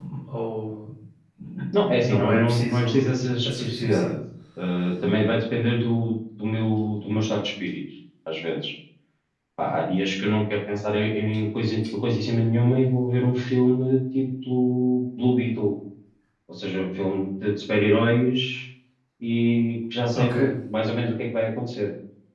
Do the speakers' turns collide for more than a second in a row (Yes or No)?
Yes